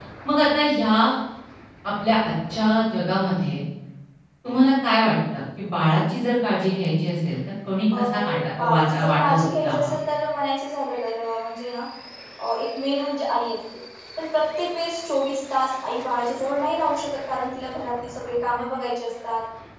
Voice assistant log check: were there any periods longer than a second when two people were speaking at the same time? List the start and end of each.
8.6-9.9

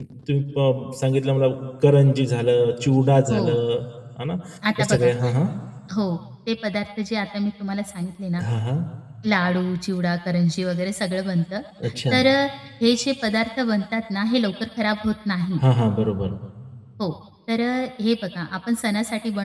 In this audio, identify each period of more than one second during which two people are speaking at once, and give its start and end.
none

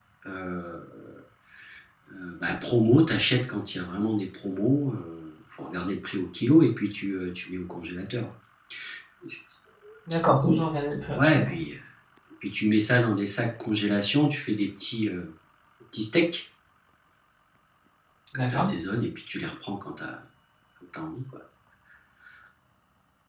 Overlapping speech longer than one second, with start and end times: none

